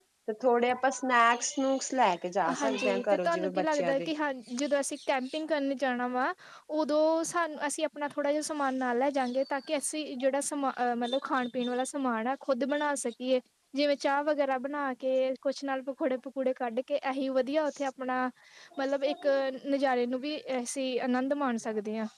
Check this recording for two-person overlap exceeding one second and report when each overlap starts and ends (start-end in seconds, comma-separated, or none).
2.6-4.1